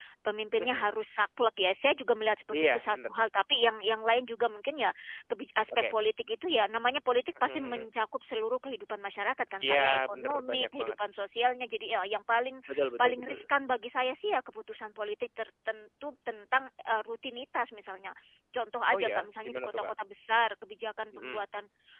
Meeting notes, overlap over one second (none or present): present